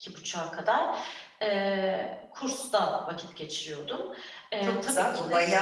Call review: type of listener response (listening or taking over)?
taking over